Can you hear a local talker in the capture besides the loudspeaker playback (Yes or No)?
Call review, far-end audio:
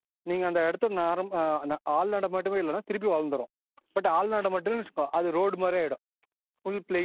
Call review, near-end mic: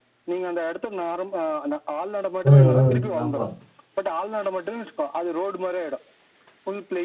Yes